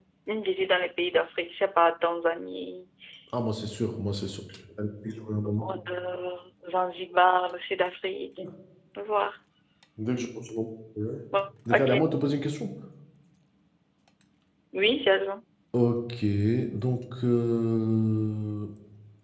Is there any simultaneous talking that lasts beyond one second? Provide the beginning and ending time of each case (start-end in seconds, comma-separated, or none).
none